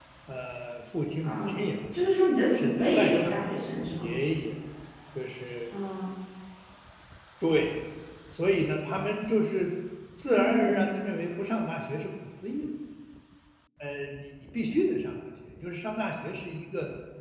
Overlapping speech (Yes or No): Yes